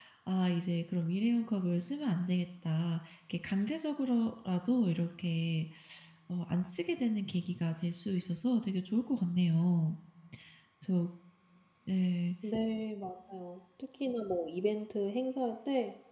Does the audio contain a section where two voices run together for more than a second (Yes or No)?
No